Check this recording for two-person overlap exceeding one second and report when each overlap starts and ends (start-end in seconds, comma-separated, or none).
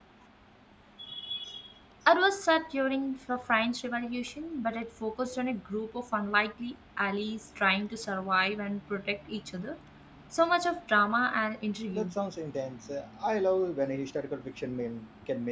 none